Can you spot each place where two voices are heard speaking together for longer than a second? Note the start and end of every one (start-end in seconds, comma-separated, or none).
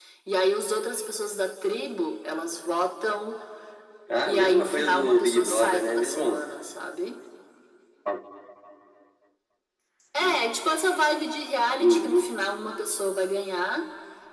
4.2-6.4